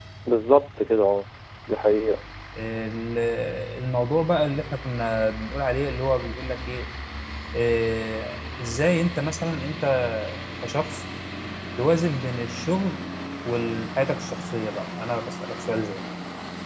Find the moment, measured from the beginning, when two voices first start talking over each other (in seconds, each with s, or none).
none